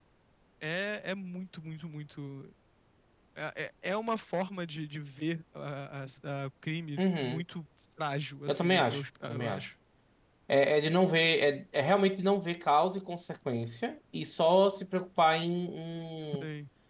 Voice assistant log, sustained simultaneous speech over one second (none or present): present